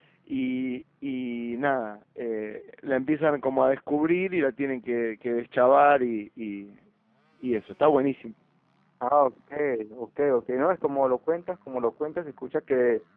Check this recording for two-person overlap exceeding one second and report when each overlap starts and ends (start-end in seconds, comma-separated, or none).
none